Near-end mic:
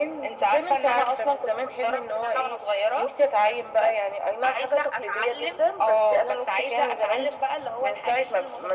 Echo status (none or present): present